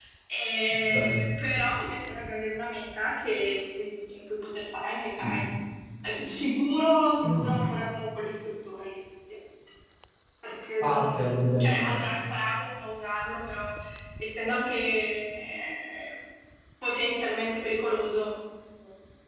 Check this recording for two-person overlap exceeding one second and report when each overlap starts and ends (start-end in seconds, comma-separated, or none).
10.8-12.0